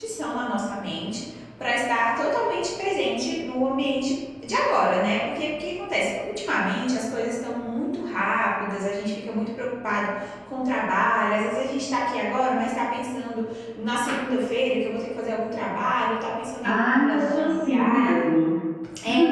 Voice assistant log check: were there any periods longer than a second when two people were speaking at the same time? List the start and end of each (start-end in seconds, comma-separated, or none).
16.6-18.1